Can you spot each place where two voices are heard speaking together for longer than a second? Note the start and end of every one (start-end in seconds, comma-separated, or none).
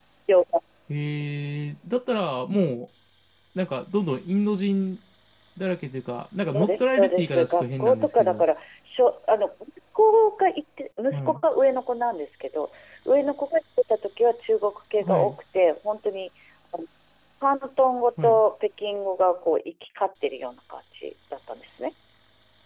6.5-8.4